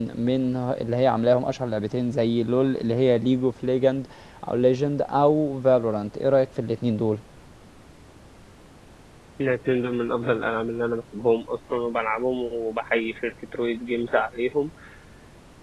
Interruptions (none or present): none